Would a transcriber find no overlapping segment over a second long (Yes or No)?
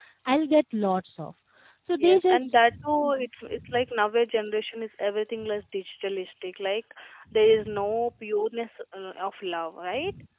No